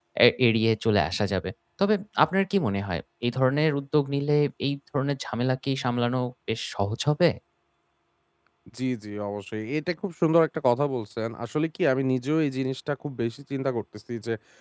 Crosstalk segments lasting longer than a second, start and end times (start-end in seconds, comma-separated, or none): none